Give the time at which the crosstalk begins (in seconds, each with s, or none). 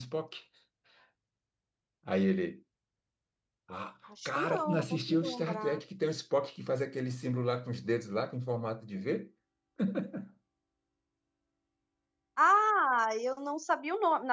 4.2 s